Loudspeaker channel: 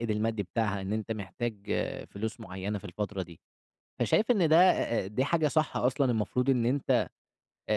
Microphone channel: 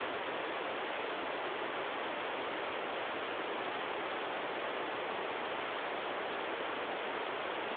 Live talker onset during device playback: none

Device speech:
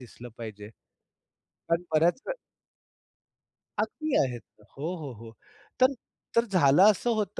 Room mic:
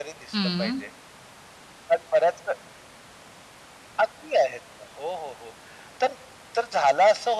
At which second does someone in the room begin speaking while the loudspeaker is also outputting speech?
0.3 s

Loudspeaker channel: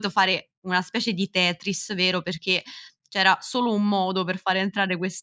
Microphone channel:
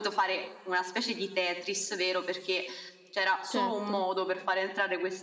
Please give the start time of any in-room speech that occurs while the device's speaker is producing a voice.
3.5 s

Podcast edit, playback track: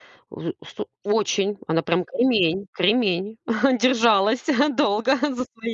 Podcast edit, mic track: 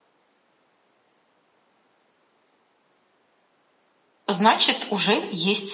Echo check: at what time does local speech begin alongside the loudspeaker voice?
4.3 s

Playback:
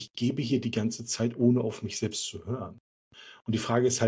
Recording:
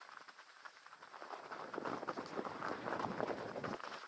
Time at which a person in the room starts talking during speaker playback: none

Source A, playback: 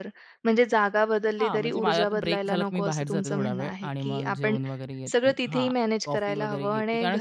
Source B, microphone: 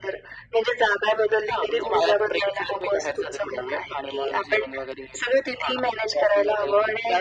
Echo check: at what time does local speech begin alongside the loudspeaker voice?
none

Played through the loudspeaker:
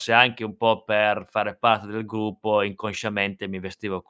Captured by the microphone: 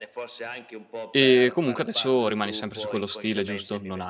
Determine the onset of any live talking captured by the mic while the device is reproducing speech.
1.1 s

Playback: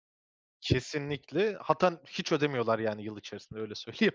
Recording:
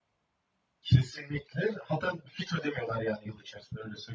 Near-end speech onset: none

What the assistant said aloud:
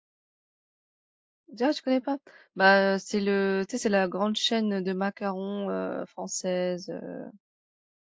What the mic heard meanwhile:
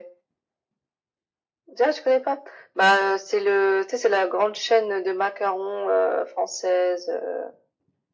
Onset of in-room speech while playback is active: none

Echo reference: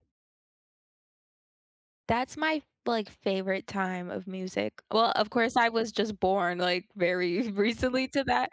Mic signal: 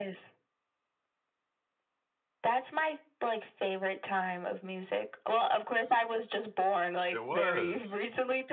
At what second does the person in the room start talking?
7.1 s

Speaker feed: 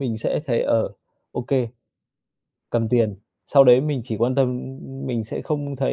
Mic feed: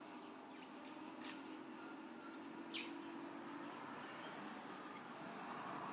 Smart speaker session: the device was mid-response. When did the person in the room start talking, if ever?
none

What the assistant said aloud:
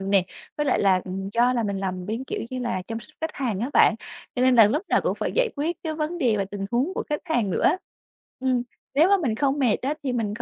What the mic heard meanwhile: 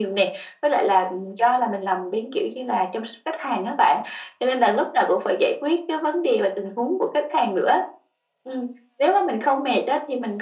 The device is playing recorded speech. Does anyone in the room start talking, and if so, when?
none

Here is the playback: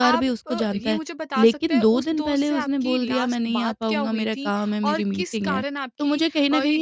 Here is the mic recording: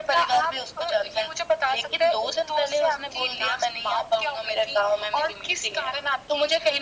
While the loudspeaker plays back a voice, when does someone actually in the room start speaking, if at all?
none

